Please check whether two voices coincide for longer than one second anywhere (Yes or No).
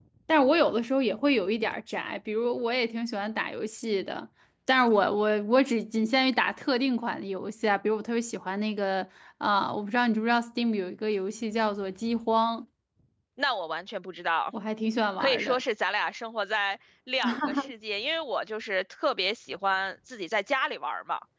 No